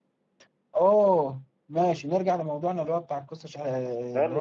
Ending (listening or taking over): taking over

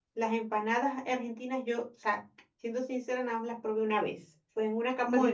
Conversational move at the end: listening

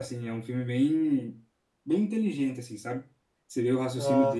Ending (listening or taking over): listening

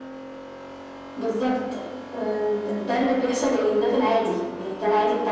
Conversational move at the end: listening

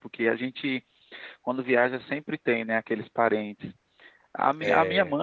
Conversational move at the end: listening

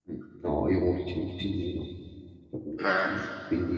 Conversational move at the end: listening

